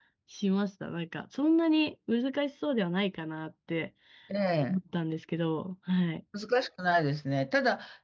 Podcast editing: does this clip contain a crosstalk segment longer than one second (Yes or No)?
No